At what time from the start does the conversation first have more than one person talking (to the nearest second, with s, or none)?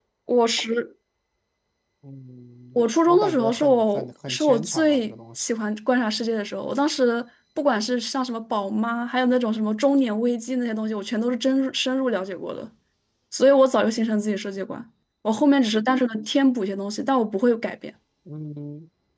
3 s